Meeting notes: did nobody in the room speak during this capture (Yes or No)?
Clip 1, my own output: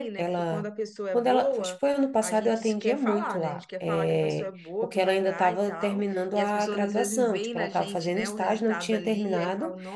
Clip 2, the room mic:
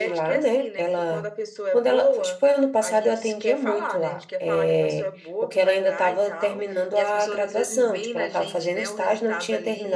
Yes